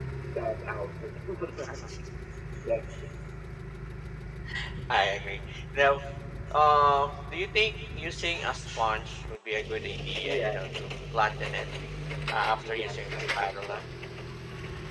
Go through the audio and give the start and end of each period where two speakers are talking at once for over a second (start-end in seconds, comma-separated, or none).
12.6-13.8